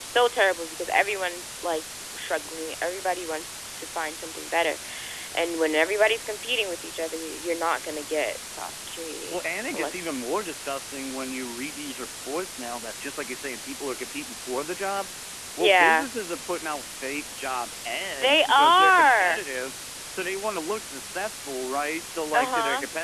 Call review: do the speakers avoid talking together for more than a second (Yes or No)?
No